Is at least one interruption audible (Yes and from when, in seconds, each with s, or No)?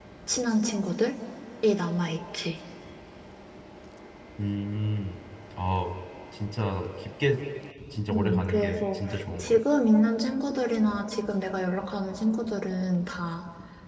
Yes, from 8.1 s